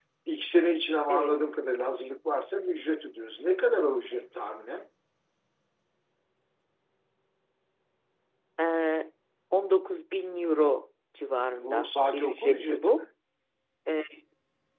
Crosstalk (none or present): present